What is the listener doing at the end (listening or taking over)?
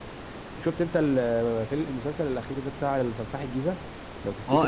taking over